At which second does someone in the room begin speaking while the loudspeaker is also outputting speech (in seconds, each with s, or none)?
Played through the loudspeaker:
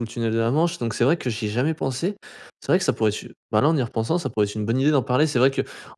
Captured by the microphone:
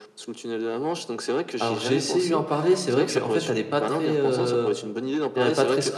1.6 s